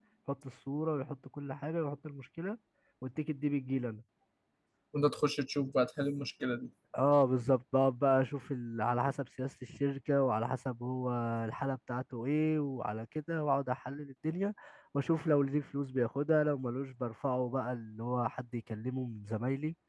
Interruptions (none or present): none